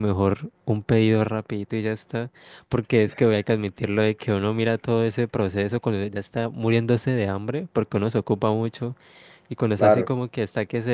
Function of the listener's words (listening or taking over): listening